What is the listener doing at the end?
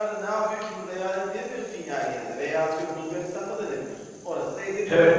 taking over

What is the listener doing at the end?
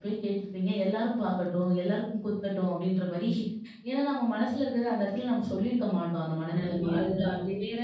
taking over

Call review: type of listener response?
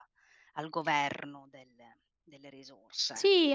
taking over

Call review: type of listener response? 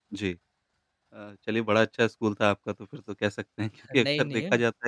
listening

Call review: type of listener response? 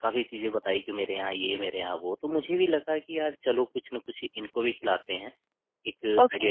listening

